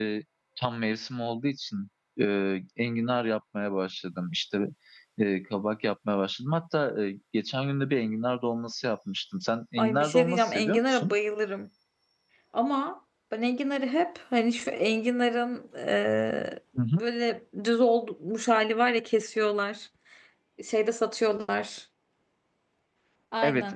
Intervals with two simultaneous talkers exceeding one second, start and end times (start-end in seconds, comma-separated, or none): 9.8-11.2